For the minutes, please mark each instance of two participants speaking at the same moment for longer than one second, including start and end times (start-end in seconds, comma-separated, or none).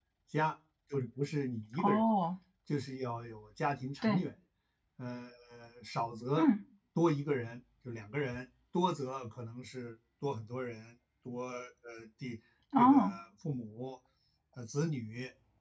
none